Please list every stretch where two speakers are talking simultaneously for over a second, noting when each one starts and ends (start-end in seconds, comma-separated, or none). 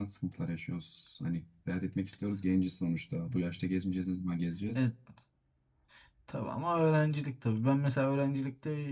none